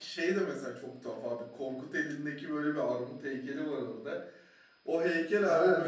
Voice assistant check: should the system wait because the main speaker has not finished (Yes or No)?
Yes